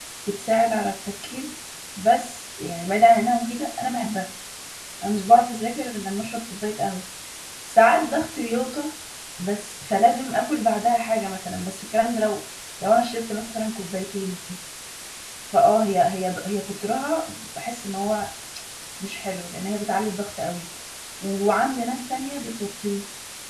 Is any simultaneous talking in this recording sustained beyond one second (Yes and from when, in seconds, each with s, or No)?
No